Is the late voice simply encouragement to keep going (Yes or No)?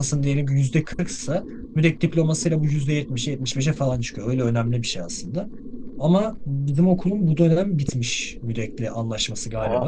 Yes